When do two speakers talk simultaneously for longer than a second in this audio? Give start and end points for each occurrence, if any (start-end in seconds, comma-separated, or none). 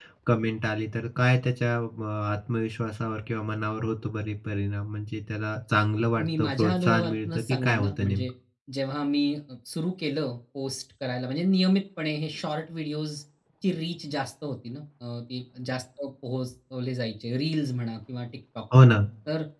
6.2-8.3